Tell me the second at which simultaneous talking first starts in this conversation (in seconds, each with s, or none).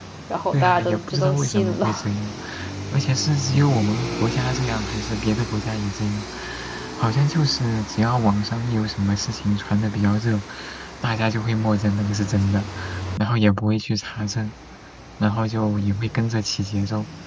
0.5 s